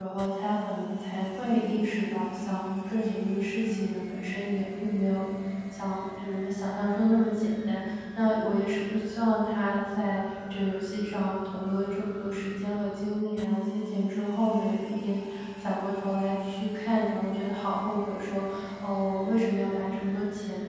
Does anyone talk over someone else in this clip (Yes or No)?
No